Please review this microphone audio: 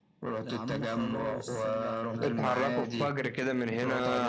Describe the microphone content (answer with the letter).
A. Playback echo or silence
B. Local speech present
B